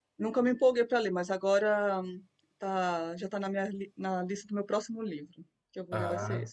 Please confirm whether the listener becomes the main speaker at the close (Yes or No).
No